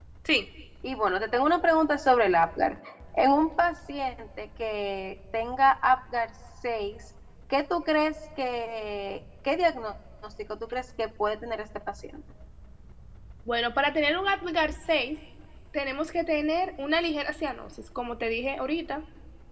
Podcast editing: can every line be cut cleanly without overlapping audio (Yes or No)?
Yes